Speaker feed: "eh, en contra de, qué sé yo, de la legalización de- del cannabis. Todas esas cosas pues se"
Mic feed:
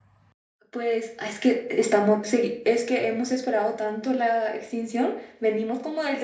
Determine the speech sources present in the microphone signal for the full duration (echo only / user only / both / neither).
user only